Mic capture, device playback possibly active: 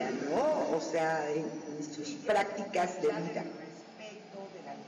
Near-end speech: present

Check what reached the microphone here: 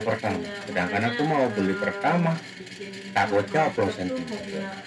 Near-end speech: present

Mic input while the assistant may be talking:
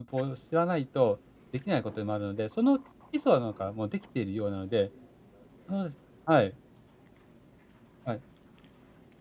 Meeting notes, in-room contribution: present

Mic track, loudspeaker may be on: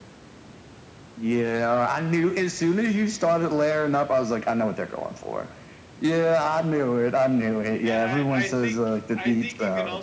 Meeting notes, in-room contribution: present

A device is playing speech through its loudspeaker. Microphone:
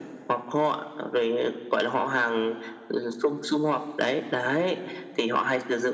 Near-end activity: none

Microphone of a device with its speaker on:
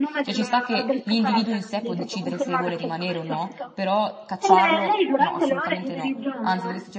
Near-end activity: present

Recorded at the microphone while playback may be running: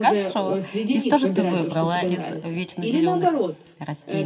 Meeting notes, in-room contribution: present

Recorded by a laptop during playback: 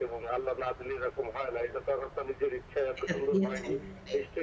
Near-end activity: present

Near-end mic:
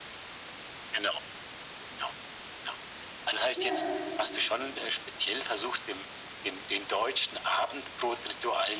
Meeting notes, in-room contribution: present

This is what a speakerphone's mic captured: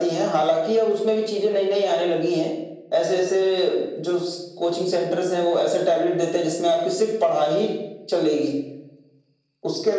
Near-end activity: none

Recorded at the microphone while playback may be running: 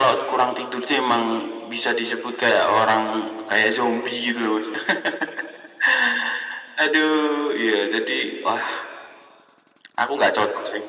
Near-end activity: none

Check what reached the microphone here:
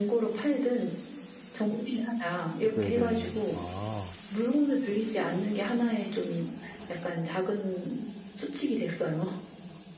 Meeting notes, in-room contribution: present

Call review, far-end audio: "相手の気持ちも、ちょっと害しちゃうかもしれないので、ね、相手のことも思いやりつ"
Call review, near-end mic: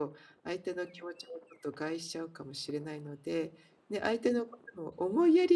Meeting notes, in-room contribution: none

